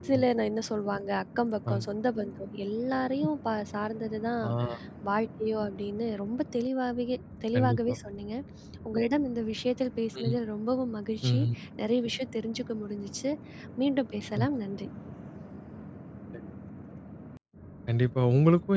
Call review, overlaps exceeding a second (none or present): none